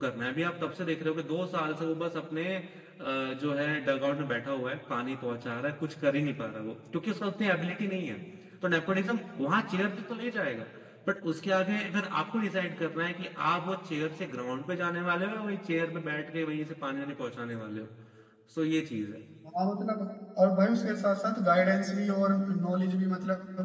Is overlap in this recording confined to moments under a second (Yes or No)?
Yes